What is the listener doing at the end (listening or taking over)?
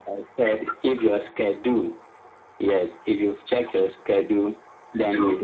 listening